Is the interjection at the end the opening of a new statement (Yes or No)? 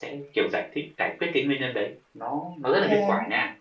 No